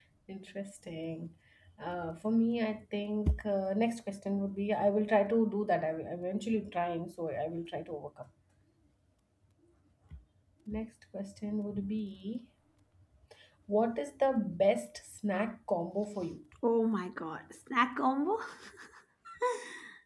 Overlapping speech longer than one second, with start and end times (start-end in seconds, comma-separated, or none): none